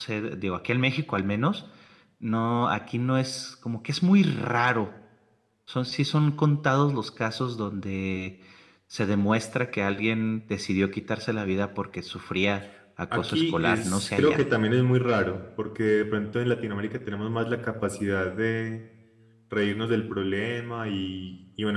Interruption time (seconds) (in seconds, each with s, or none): 13.1 s